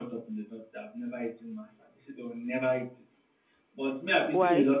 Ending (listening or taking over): listening